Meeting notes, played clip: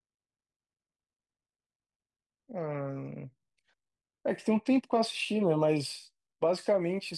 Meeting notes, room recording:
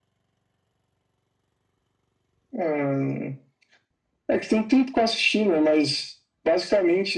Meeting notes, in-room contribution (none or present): none